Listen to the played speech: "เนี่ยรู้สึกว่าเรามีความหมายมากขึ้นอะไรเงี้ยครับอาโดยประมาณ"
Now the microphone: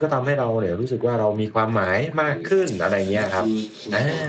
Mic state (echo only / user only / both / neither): both